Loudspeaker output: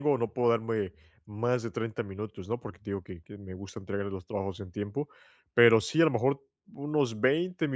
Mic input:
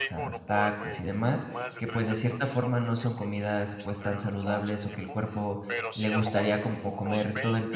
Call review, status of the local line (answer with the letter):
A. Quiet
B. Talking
B